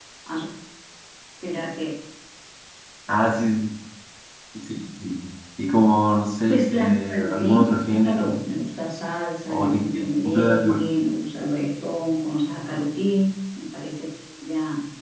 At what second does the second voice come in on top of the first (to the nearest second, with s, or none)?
6 s